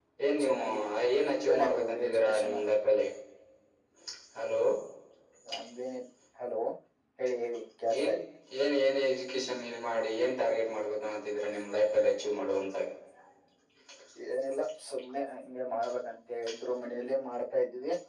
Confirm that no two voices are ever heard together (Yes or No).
No